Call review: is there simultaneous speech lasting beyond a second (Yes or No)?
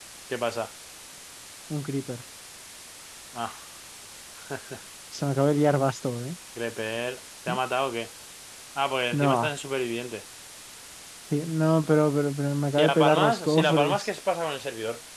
Yes